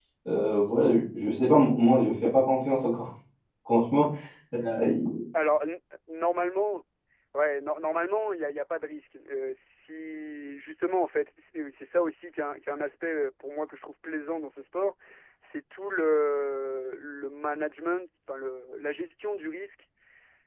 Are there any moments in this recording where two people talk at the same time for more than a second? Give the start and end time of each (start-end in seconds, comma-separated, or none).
none